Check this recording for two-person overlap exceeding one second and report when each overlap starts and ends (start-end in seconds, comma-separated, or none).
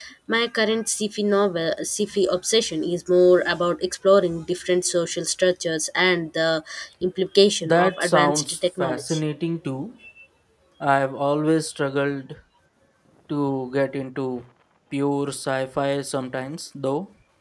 7.6-9.2